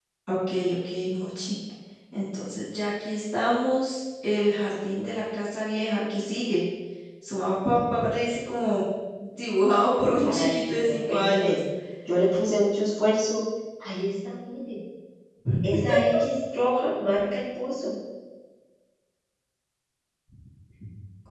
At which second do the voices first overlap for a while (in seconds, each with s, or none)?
10.2 s